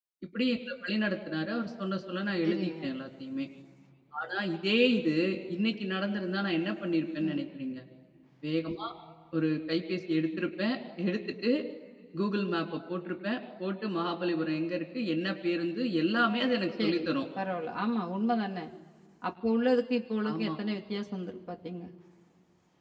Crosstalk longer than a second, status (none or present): none